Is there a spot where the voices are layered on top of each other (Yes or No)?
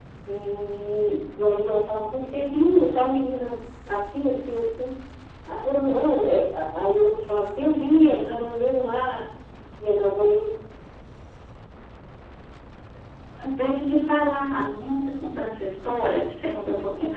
No